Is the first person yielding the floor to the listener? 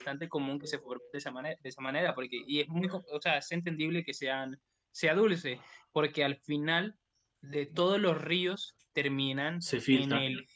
No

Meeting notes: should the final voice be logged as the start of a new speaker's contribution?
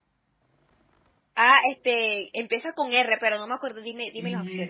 Yes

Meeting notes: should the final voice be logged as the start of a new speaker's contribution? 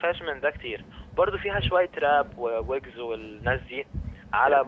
No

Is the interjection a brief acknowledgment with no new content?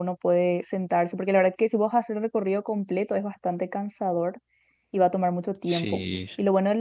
Yes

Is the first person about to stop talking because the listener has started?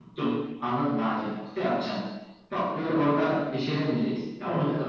No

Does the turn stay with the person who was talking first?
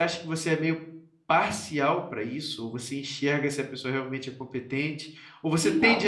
Yes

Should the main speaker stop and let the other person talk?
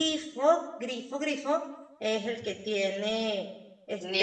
Yes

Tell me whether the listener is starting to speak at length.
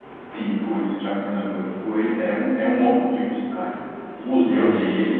No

